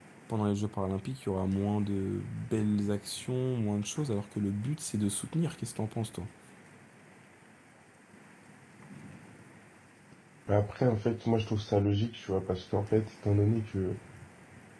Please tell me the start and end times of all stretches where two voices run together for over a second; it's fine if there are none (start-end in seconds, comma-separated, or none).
none